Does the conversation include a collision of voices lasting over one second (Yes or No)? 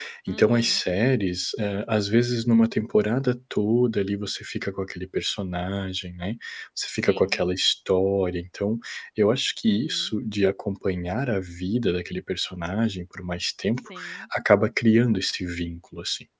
No